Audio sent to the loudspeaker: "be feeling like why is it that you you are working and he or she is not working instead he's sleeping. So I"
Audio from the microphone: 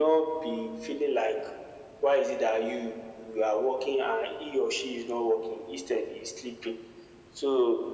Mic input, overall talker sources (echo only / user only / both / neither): echo only